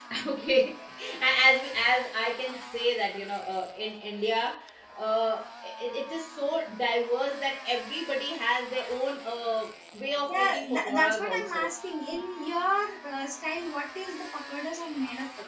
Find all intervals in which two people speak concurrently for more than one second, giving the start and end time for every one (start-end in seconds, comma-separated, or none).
10.3-11.6